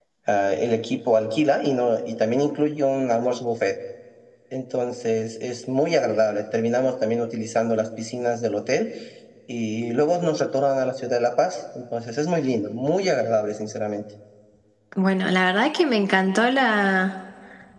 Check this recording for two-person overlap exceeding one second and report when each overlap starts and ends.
none

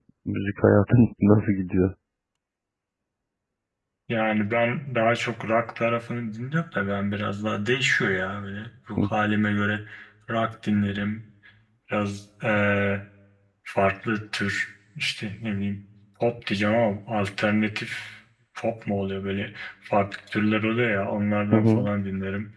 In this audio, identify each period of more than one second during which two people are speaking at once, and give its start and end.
none

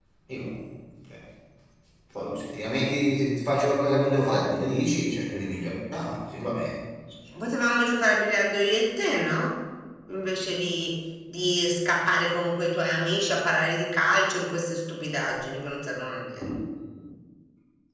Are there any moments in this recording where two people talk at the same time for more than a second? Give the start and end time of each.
none

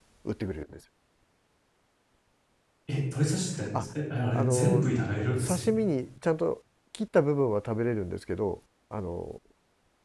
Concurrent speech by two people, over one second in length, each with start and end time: none

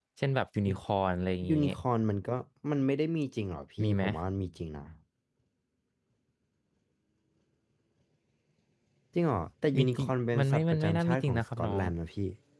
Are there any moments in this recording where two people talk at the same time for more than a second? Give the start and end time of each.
9.8-11.8

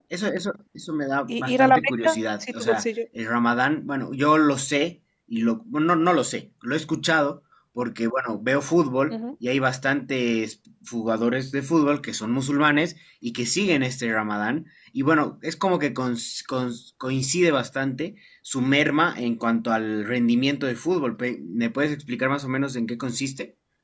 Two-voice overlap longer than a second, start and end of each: 1.3-2.9

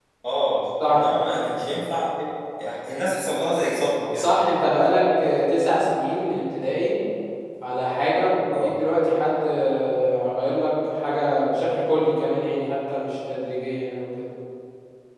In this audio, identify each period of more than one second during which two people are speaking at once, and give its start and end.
none

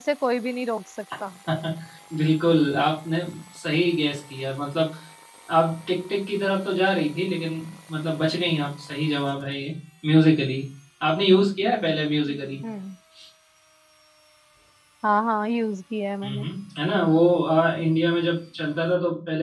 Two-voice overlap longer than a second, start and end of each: none

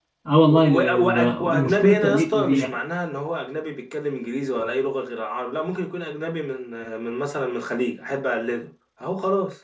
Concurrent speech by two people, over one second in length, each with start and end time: 0.5-2.7

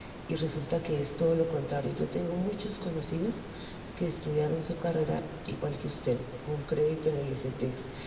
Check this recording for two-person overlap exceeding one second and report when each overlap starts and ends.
none

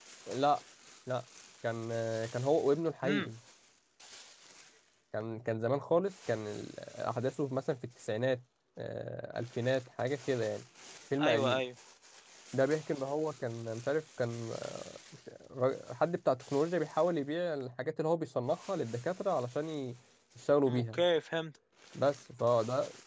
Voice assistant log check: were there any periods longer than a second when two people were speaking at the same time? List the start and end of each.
none

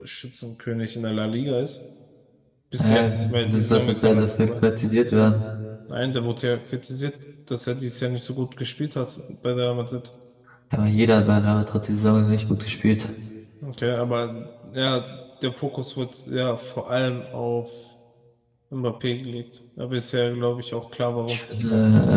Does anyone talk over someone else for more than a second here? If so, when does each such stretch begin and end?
2.8-4.5

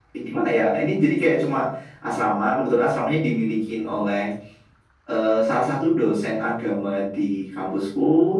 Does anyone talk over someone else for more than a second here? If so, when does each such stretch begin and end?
none

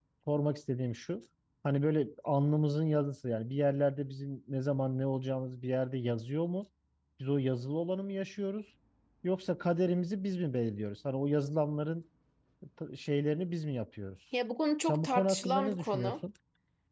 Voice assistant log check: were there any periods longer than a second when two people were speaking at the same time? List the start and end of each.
14.8-16.2

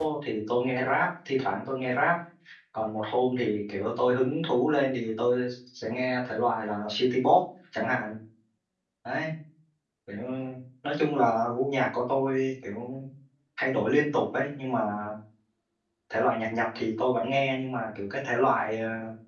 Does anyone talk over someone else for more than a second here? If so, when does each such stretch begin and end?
none

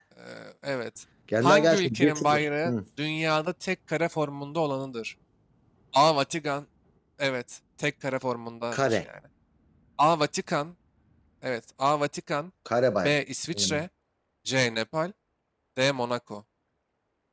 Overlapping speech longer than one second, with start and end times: 1.4-2.7

